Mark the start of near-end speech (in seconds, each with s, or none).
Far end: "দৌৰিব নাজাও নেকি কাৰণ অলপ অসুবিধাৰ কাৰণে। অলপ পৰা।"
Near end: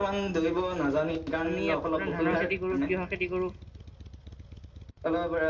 1.5 s